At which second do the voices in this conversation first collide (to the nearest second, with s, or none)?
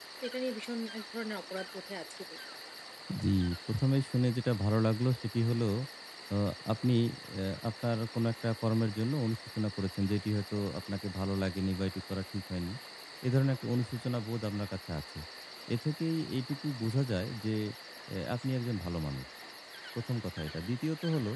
none